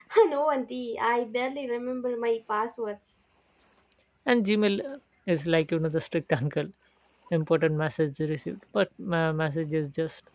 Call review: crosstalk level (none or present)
none